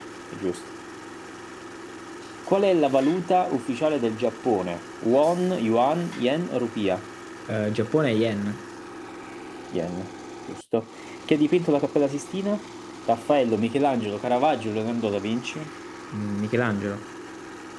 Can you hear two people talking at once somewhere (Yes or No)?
No